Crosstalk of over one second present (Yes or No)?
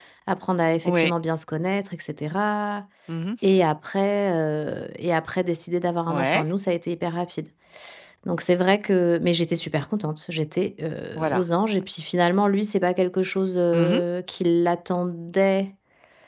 No